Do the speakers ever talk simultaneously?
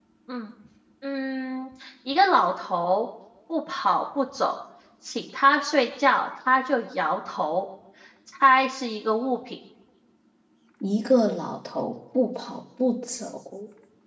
No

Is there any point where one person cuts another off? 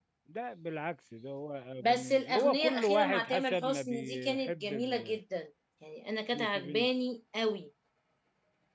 Yes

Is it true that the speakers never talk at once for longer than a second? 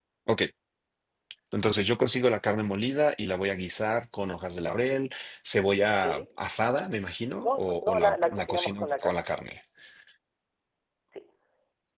No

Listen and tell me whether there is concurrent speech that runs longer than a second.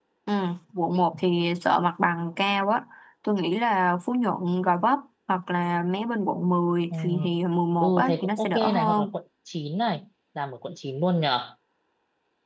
Yes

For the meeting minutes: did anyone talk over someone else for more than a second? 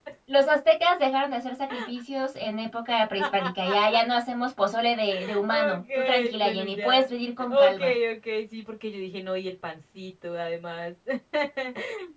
Yes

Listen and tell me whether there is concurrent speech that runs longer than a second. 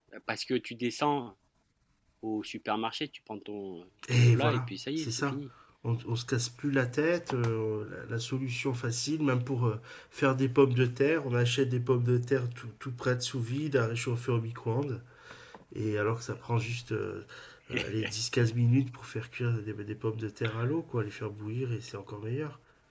Yes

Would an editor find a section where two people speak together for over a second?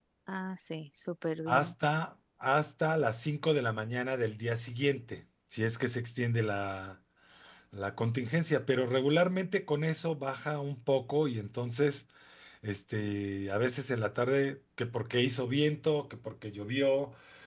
No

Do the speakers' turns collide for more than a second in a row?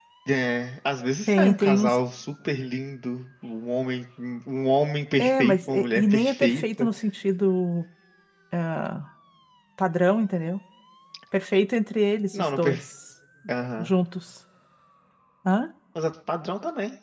Yes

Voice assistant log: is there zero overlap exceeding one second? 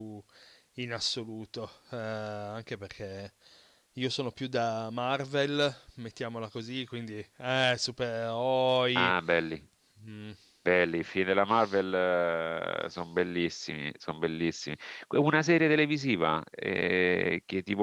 Yes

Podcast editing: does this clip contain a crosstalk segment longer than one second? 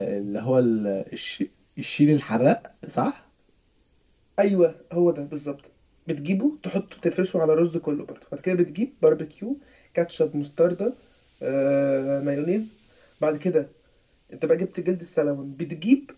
No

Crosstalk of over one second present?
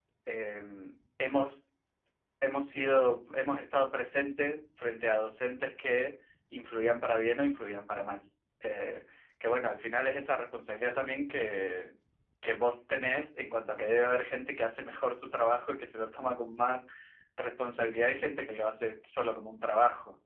No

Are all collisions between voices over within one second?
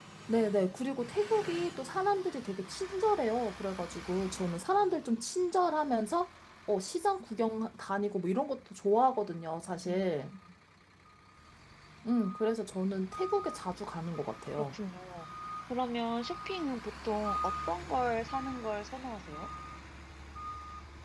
Yes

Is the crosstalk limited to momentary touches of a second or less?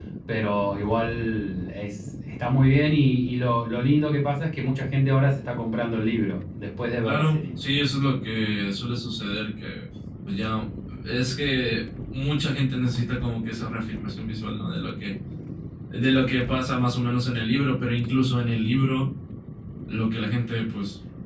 Yes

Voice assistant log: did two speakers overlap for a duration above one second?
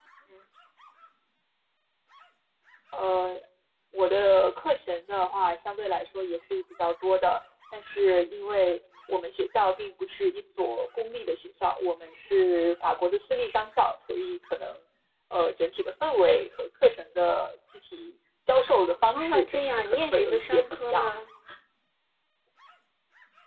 Yes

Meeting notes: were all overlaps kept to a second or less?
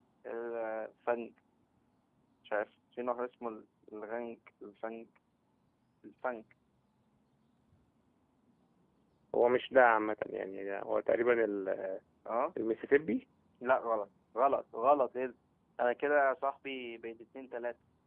Yes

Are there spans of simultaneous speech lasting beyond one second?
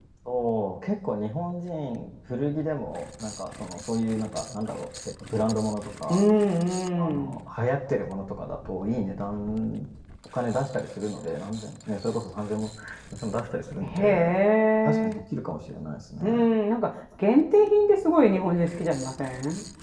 No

